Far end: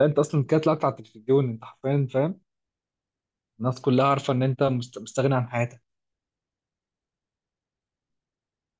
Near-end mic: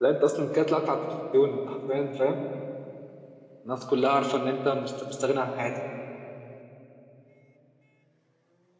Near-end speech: none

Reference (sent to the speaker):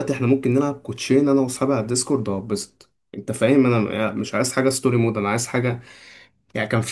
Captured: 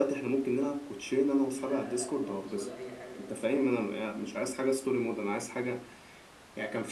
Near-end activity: present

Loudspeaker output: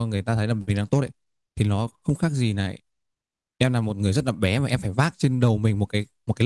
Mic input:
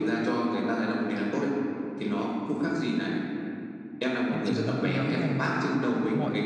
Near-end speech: present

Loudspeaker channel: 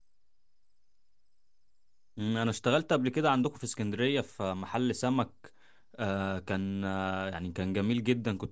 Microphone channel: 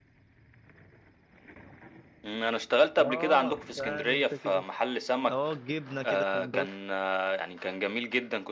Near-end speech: present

